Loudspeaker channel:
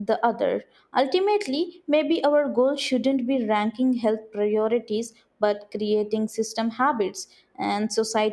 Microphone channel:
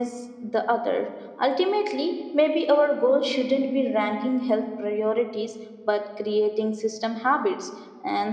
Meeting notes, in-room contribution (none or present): none